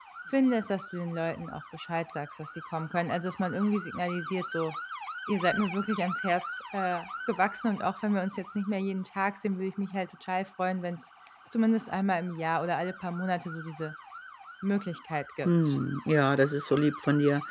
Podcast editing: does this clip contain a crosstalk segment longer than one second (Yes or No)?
No